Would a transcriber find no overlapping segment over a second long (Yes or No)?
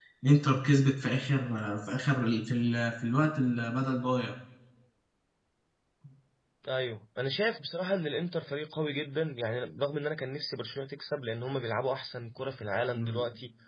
Yes